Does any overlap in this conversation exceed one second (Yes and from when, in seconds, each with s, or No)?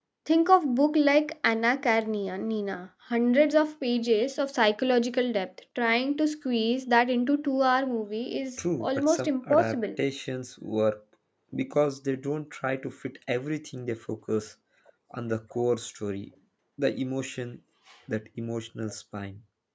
Yes, from 8.6 s